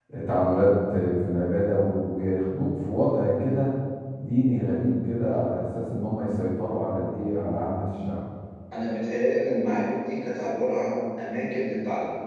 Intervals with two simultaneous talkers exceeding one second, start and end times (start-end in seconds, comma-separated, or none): none